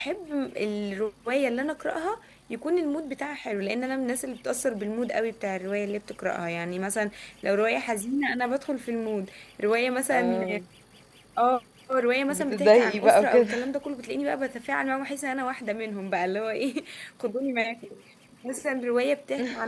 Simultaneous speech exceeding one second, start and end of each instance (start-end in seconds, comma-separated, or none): 12.3-13.5